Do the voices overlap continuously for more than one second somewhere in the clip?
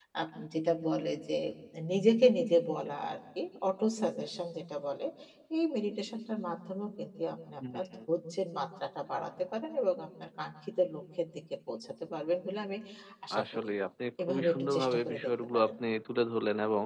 Yes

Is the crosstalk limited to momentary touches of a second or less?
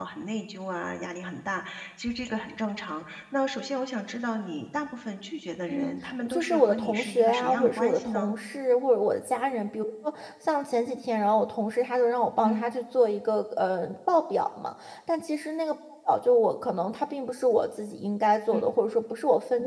No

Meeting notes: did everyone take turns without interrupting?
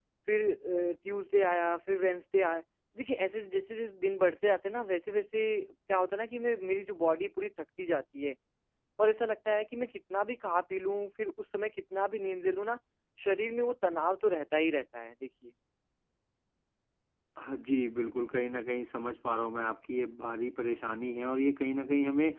Yes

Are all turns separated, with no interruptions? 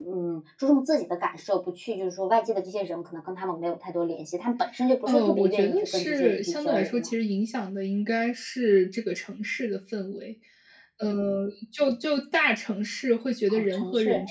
No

